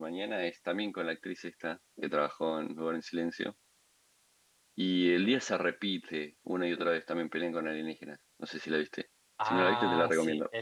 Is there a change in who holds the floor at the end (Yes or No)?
Yes